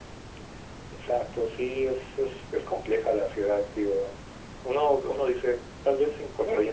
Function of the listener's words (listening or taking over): listening